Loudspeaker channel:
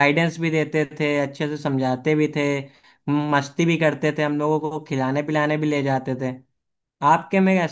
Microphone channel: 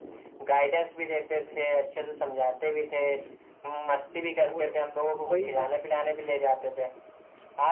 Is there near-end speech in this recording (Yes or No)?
Yes